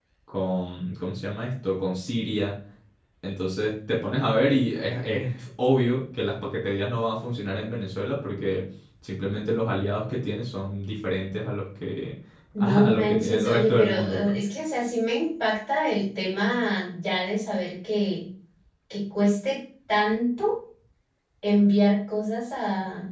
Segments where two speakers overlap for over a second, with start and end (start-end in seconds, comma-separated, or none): 12.6-14.3